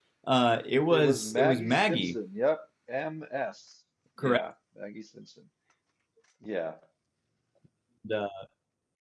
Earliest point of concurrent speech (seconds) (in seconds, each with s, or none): 0.9 s